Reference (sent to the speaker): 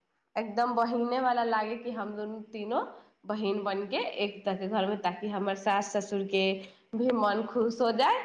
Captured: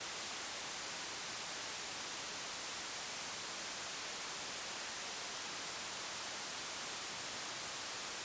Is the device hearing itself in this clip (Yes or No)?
No